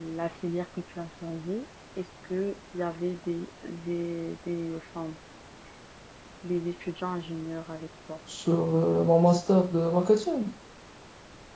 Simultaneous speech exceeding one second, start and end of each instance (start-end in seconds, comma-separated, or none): none